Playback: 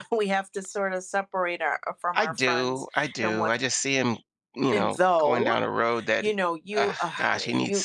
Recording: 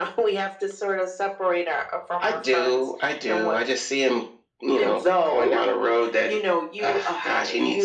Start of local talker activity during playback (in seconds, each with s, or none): none